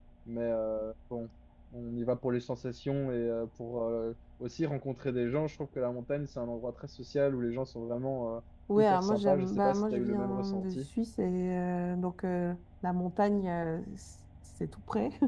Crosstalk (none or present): present